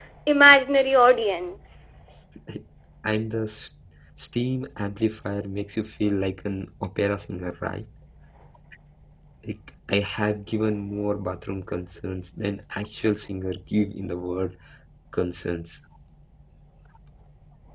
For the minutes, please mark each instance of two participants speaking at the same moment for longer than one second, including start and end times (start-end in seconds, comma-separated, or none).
none